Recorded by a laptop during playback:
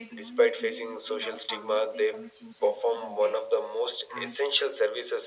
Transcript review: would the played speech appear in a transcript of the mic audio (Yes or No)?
Yes